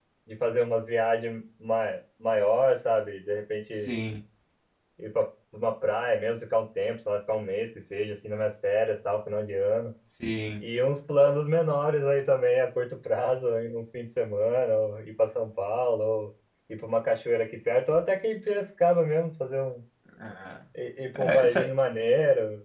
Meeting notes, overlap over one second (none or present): none